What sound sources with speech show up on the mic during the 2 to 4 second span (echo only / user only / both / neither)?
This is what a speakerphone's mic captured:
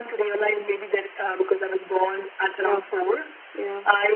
both